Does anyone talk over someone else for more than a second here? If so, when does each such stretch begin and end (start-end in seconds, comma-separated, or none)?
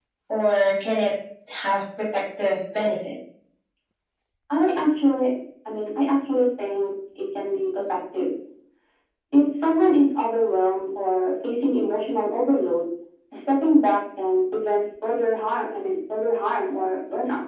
none